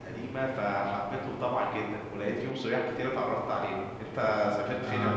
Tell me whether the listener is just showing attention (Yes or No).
No